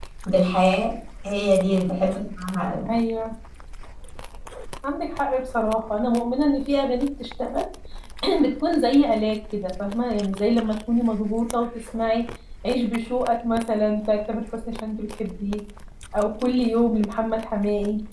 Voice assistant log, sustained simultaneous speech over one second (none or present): none